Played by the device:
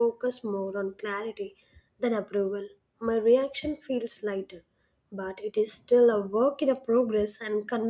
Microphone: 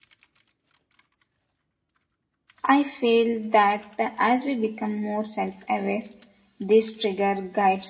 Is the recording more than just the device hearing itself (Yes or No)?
Yes